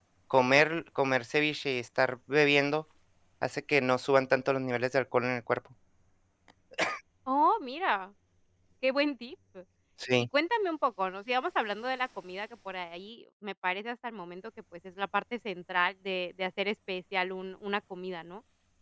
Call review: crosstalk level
none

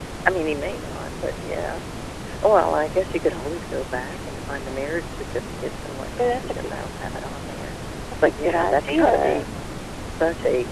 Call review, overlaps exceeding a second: present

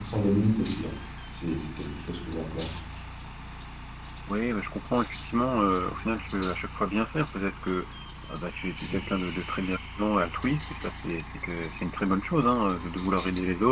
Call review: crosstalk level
none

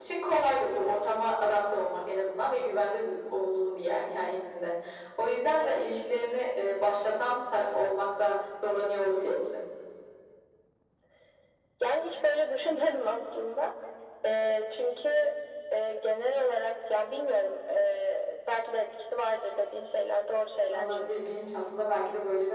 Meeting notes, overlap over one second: none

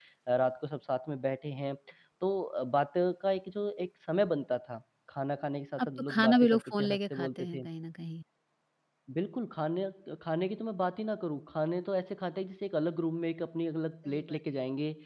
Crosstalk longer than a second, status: present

